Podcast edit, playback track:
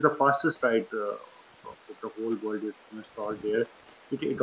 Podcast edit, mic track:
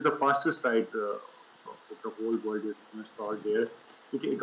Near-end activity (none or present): none